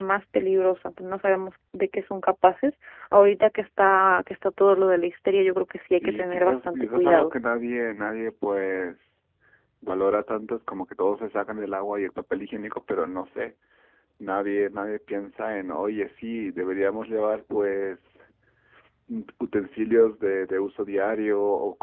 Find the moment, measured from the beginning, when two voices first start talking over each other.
5.9 s

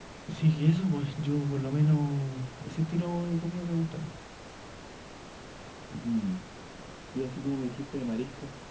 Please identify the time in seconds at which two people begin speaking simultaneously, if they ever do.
none

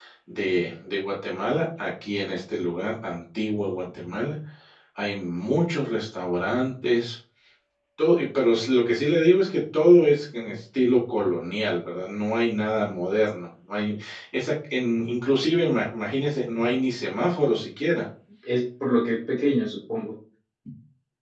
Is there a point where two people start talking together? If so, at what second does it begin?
none

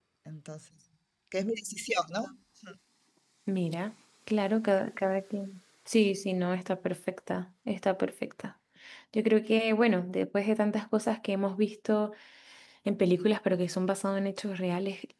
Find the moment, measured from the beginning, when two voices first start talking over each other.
none

